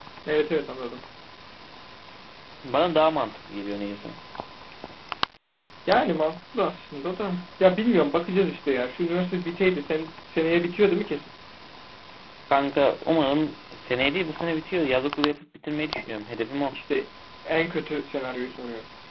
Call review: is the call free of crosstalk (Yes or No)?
Yes